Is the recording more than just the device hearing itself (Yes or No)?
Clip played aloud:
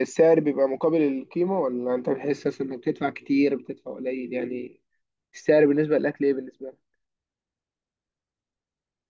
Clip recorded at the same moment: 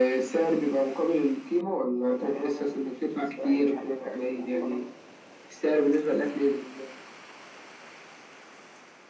Yes